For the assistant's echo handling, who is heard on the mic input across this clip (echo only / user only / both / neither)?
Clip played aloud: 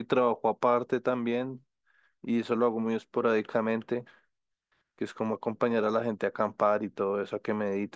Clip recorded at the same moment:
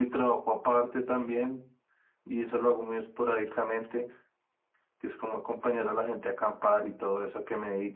echo only